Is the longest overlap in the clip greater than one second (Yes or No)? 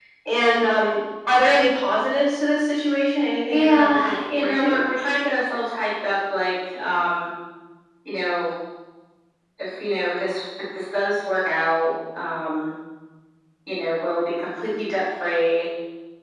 Yes